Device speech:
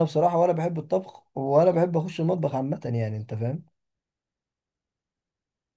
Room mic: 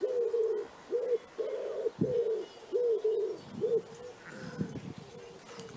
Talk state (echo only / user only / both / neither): neither